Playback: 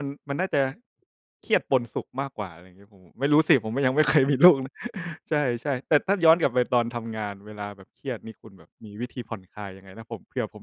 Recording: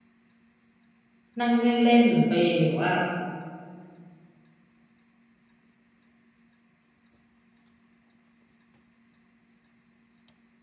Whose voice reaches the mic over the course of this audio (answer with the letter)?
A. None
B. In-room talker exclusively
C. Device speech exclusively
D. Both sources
B